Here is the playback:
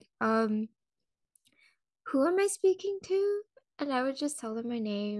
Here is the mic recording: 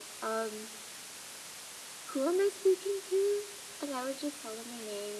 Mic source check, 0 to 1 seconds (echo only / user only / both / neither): echo only